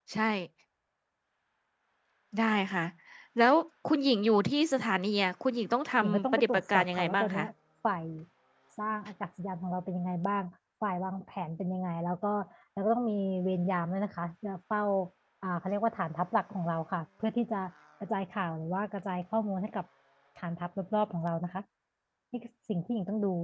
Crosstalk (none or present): present